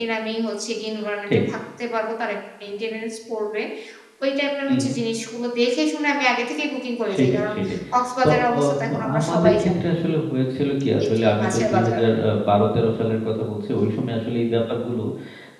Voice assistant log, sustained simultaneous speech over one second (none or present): present